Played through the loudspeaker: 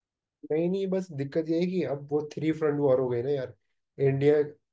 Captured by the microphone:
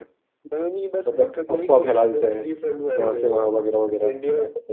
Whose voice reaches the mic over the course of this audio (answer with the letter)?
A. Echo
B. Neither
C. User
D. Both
D